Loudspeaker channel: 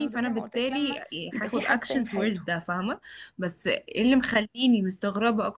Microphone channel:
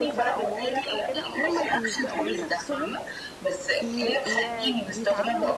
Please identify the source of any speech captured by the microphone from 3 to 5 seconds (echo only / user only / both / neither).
both